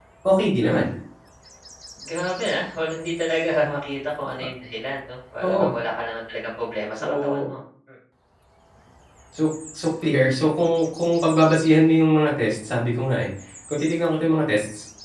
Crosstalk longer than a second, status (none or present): none